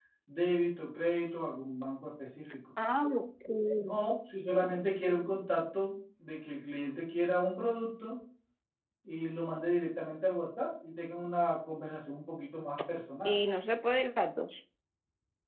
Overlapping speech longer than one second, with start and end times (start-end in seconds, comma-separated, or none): none